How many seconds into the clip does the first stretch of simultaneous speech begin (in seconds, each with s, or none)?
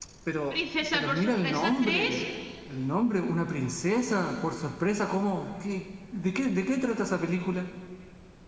0.9 s